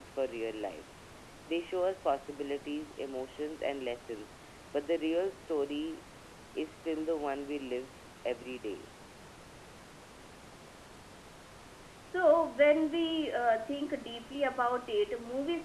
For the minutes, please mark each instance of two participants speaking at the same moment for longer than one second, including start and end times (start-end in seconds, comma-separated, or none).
none